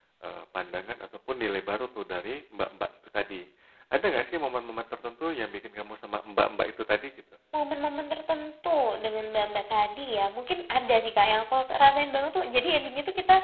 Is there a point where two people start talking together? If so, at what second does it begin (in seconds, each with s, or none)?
none